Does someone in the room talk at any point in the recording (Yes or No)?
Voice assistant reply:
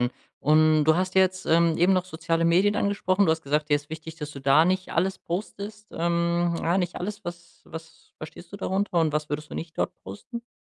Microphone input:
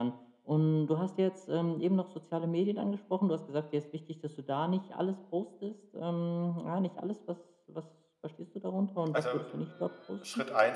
Yes